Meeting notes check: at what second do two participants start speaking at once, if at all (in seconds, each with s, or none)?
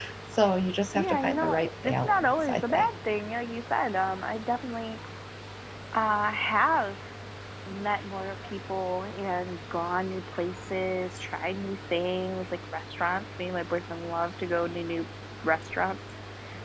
0.9 s